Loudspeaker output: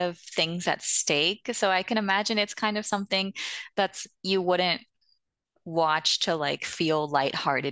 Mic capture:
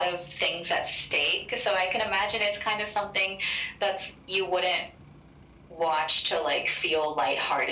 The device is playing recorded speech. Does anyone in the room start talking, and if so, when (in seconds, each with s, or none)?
none